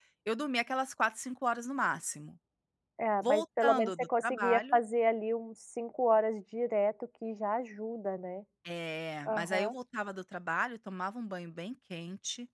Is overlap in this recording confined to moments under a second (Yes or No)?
No